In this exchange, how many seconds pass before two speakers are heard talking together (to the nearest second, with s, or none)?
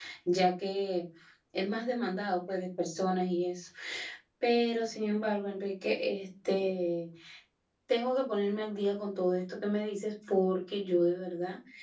none